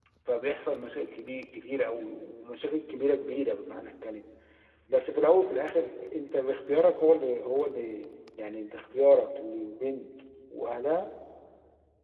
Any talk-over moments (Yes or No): No